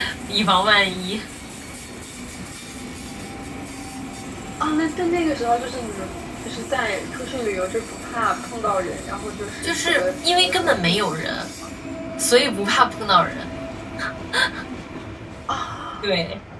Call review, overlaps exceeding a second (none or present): present